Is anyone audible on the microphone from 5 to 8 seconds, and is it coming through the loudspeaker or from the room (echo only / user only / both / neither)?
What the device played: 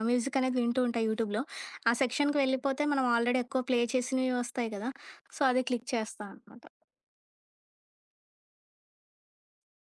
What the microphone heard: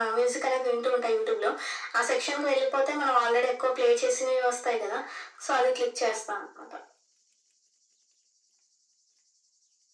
echo only